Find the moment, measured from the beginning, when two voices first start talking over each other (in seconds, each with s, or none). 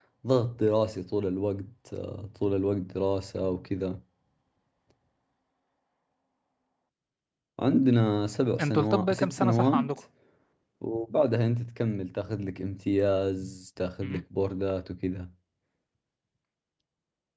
8.6 s